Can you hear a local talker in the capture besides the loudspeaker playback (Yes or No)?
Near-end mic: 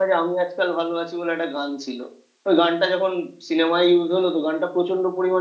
Yes